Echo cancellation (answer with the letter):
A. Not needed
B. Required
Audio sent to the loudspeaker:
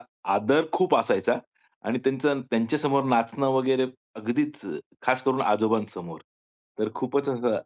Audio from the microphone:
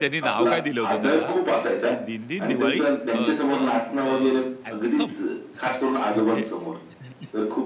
B